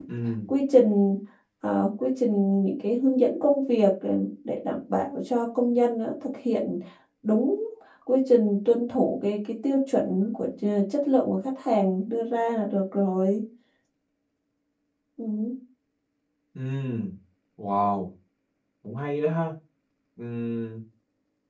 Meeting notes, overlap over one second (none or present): none